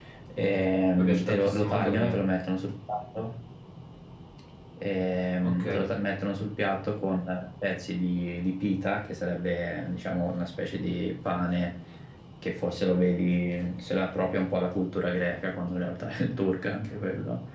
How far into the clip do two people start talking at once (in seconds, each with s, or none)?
1.0 s